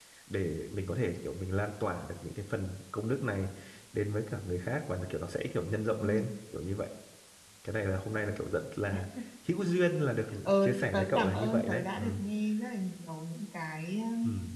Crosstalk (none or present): present